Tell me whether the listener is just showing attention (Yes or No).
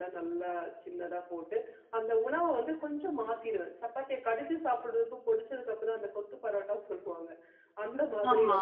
Yes